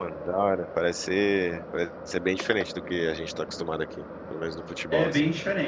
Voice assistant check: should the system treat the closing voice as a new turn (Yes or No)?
Yes